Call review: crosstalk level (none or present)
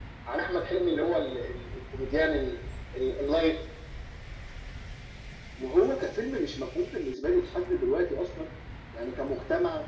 none